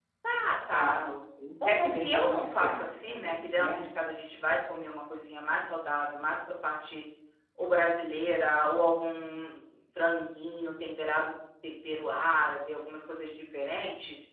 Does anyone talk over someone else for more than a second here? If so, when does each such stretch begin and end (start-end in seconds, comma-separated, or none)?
1.6-3.8